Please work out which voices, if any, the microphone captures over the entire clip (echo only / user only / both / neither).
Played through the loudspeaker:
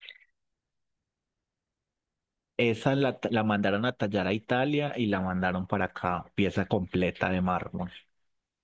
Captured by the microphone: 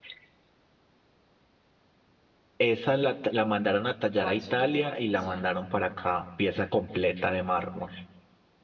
both